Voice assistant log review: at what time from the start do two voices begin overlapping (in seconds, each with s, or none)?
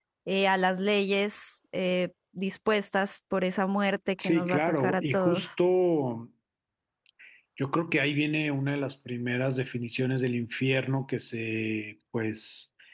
4.2 s